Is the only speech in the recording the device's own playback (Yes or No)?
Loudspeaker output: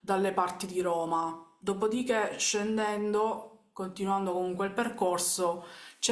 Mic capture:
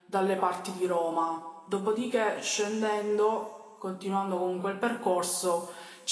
Yes